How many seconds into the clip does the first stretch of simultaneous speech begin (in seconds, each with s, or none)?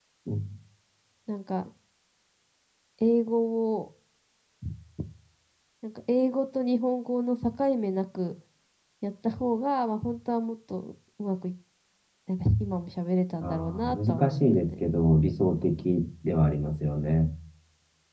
13.4 s